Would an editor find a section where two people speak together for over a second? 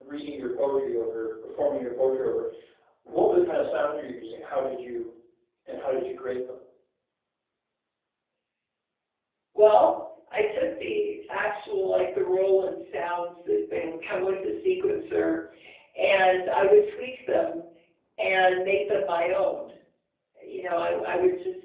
No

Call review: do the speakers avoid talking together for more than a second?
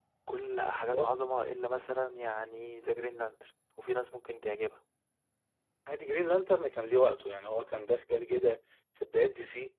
Yes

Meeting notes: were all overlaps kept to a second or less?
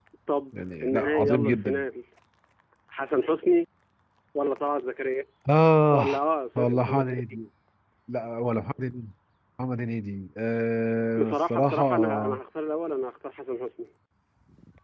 No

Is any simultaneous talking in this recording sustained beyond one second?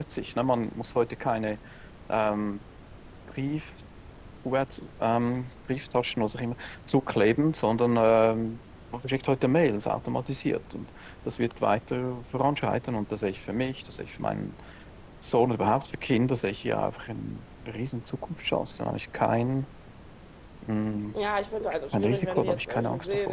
Yes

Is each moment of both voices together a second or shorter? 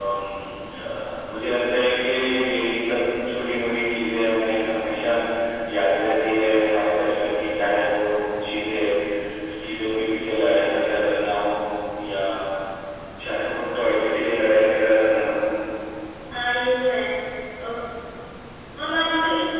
Yes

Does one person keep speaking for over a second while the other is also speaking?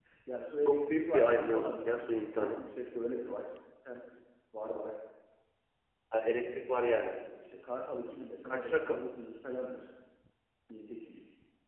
Yes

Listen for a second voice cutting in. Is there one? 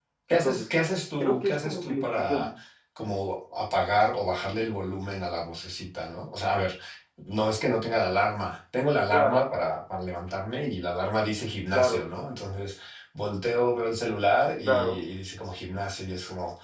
Yes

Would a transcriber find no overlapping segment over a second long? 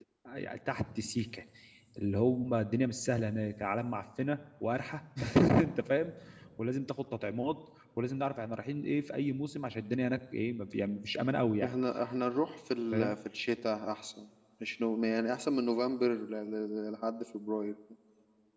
Yes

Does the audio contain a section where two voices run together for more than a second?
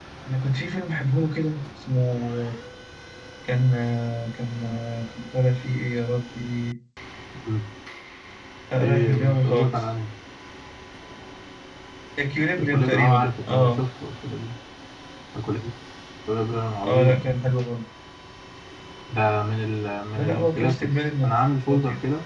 Yes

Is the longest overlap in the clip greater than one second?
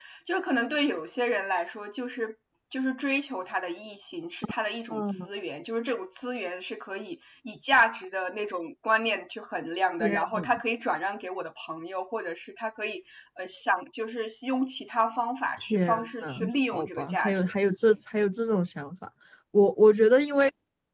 Yes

